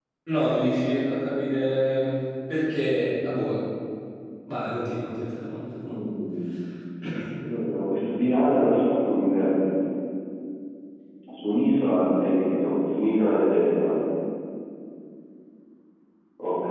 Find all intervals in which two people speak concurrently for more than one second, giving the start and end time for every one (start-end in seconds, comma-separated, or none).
none